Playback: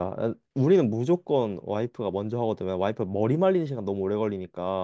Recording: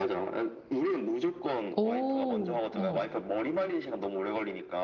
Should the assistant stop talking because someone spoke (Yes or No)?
Yes